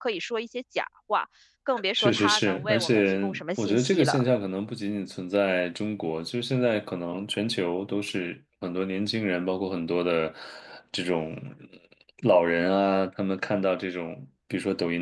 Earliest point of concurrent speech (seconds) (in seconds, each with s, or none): 1.9 s